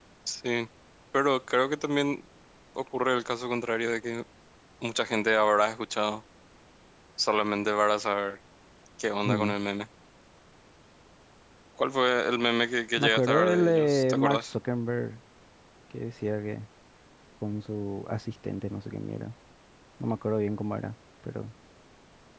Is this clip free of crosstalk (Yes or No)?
No